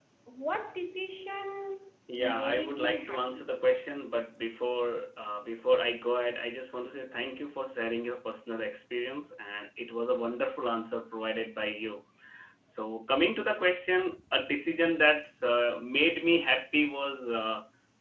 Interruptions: present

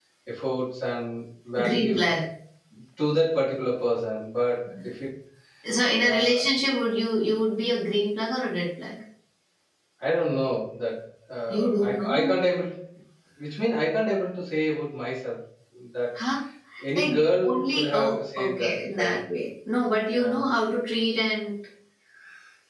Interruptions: present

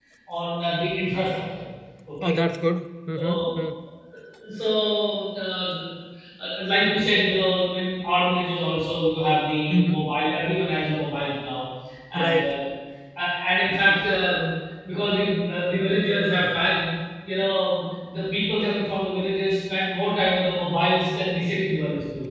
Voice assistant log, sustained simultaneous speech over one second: none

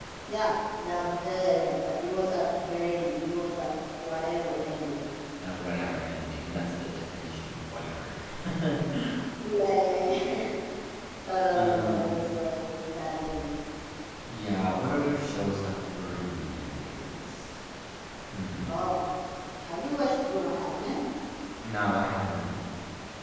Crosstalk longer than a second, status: none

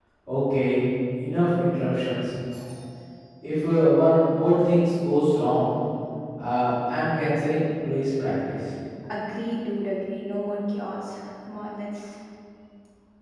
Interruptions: none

